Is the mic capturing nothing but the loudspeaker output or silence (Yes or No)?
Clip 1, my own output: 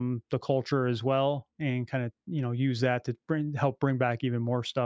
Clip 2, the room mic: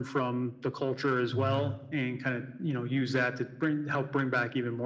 No